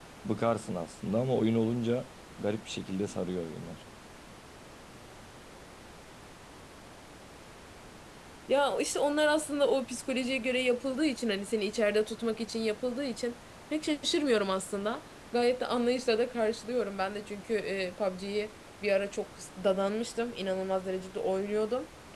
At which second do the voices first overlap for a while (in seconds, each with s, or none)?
none